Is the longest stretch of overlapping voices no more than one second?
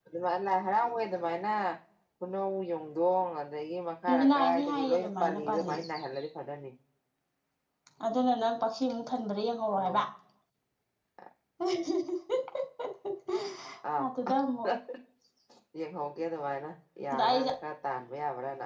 No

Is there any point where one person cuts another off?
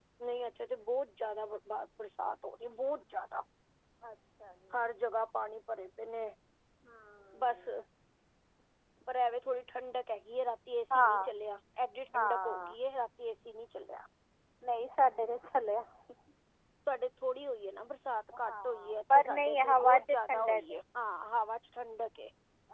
Yes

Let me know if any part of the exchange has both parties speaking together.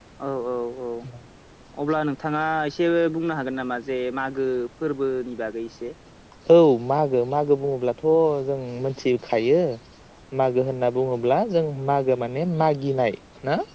No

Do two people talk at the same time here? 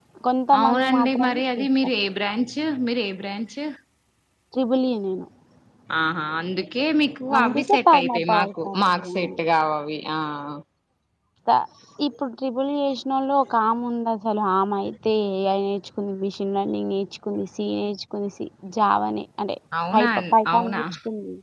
Yes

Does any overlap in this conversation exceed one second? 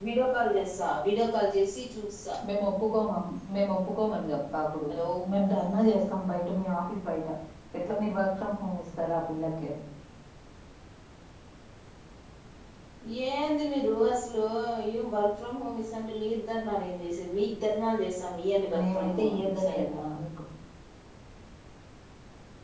Yes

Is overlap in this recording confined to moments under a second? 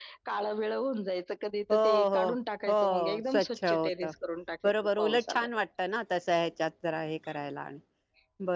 No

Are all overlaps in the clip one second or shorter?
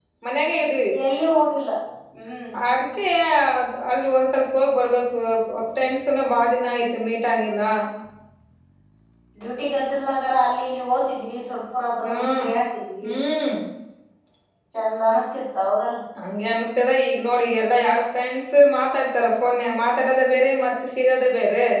Yes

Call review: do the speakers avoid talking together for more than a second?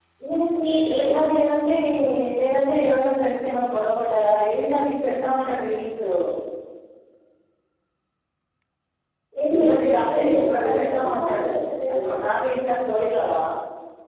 No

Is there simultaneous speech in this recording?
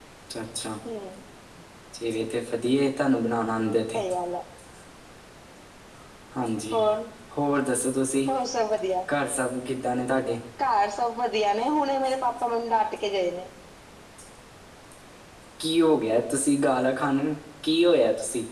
No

